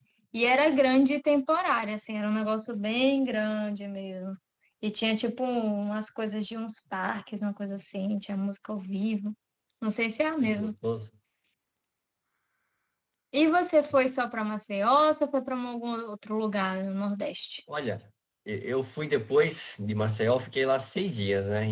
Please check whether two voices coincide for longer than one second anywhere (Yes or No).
No